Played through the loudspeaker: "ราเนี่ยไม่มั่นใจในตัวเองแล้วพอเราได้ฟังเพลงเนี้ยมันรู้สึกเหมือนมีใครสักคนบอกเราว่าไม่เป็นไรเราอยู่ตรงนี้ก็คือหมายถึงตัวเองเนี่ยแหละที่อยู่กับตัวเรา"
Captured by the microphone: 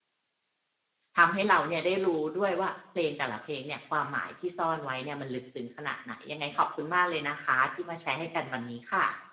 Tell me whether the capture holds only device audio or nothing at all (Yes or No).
No